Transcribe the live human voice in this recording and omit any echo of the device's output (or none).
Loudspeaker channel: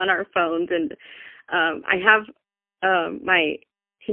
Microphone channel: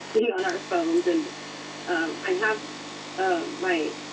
none